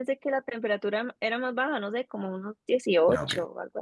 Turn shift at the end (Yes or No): Yes